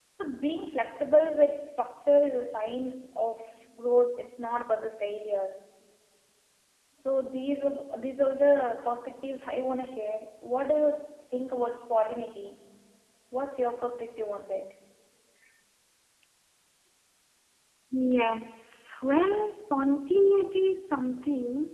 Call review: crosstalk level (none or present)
none